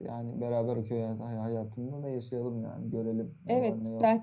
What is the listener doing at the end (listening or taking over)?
taking over